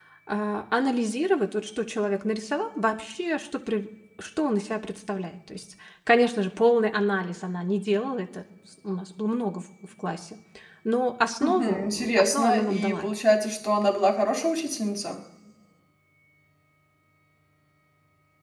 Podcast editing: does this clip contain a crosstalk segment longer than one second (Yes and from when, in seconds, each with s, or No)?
Yes, from 11.4 s